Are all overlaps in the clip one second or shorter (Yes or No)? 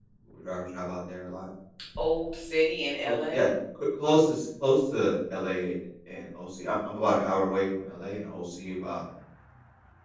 Yes